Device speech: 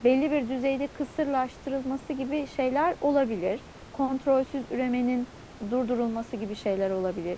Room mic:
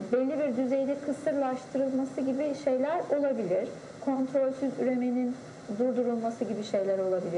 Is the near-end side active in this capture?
No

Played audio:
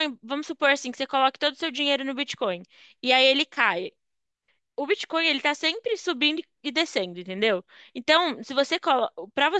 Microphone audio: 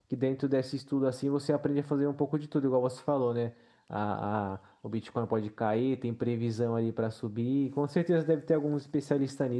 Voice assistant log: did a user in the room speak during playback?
Yes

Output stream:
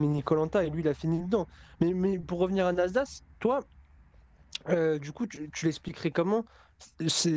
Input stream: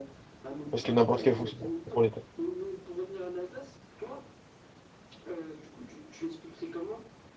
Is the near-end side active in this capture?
Yes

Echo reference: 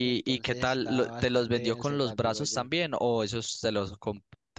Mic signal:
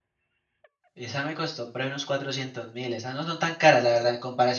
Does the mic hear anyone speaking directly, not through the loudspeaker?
Yes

